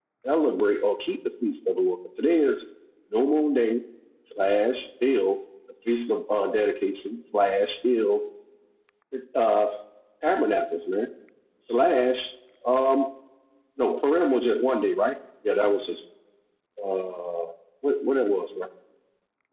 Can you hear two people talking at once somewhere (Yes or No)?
No